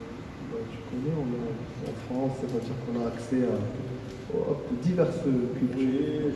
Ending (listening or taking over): taking over